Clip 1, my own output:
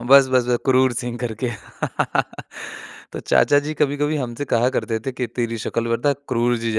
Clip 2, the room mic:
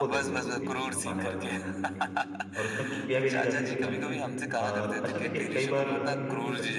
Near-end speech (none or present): present